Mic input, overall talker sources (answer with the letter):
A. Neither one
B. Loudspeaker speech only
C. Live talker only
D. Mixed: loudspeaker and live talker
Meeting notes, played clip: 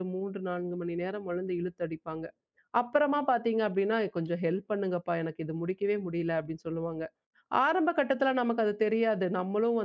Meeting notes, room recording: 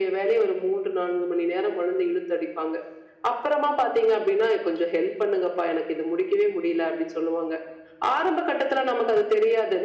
B